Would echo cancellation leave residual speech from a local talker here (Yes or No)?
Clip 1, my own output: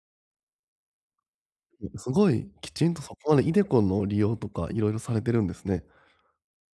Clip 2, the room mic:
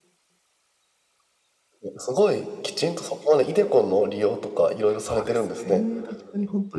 Yes